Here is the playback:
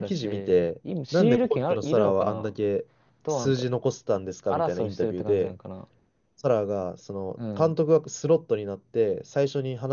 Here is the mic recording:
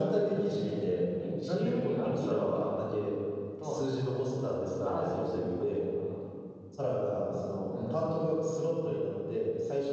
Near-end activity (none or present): none